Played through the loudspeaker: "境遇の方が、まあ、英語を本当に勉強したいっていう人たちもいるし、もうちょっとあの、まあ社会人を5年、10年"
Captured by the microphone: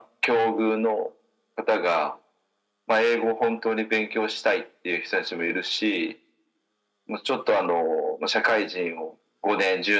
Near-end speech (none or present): none